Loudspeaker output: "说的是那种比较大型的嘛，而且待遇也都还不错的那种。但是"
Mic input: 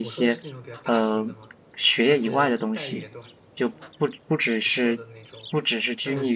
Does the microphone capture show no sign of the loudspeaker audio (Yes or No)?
No